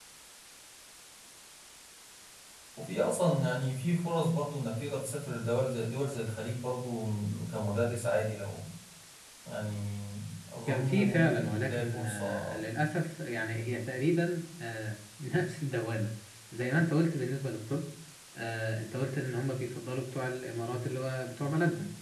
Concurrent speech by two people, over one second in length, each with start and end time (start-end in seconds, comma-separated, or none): 10.7-12.5